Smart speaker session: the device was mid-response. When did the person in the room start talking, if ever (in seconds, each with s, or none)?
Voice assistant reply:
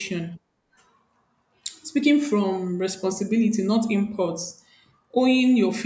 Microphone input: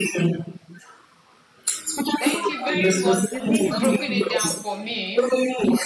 2.2 s